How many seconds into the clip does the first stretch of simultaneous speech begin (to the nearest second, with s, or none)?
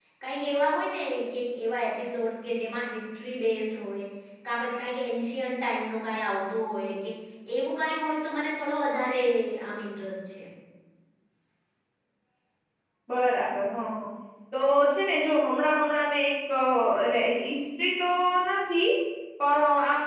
none